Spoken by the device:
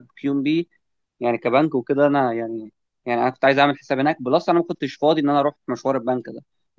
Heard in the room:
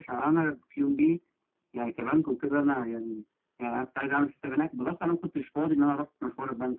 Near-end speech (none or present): none